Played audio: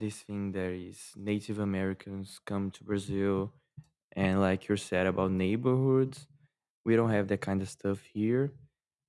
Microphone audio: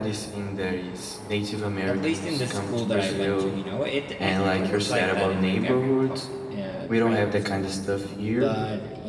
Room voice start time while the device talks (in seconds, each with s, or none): 1.9 s